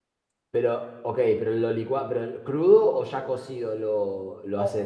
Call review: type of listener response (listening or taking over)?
taking over